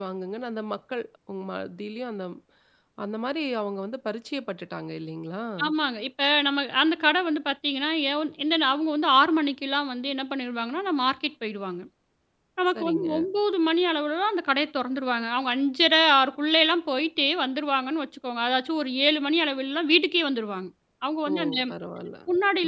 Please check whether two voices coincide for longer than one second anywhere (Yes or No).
No